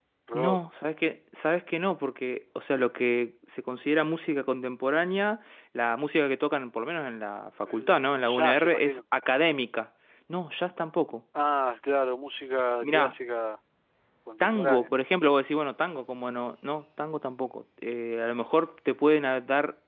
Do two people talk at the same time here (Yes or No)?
Yes